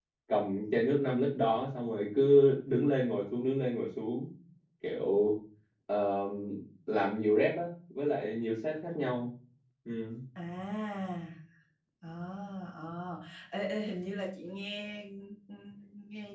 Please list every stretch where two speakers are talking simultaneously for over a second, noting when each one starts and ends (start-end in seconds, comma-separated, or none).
none